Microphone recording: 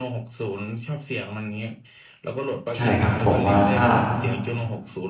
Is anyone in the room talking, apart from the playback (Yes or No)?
Yes